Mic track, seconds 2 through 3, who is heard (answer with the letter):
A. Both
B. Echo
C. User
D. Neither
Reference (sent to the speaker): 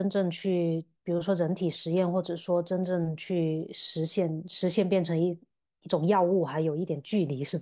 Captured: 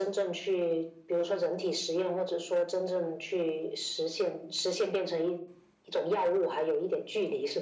B